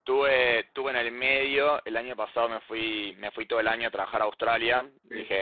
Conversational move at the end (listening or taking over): listening